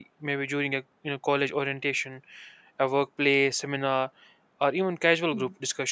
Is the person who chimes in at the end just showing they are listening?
Yes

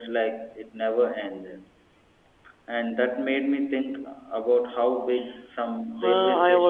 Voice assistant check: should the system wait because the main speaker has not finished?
No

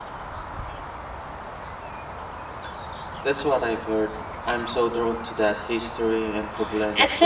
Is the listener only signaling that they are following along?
No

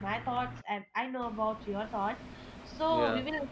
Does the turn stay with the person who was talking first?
Yes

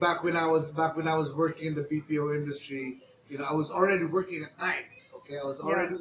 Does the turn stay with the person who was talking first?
Yes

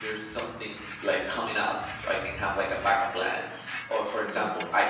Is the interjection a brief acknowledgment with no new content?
Yes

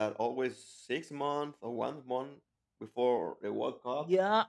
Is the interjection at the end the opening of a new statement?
Yes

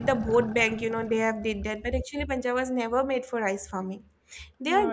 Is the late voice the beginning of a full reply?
Yes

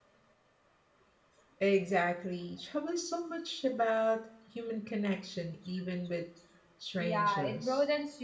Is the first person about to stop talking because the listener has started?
Yes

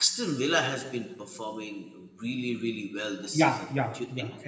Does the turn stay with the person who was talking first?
No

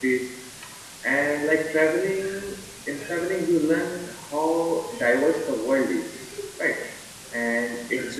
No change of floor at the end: Yes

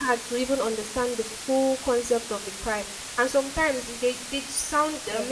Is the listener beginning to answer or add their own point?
No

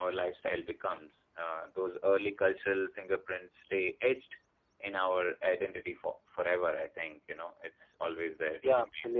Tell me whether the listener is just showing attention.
No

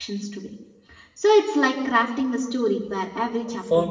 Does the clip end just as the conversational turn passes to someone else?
Yes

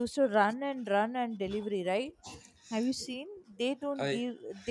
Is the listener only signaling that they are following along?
Yes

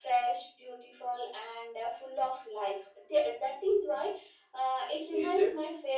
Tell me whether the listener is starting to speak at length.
No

